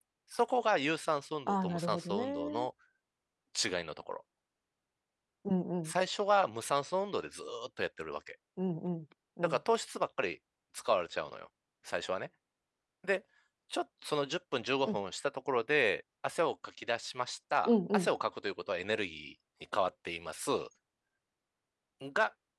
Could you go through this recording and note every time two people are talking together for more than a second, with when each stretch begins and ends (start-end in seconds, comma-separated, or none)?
1.5-2.7